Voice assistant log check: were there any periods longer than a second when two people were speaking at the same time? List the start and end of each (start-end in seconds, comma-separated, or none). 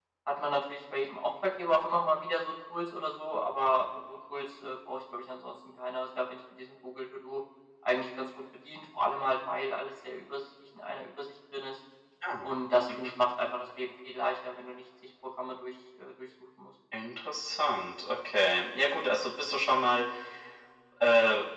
none